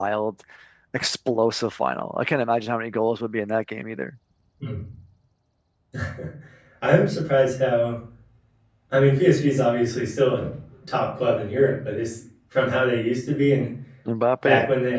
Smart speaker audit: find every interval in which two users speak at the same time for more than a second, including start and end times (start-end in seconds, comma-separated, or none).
none